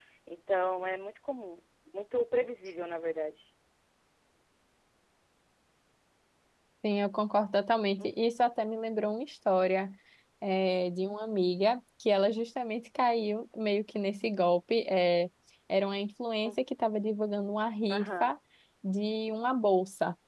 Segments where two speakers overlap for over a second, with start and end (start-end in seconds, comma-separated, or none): none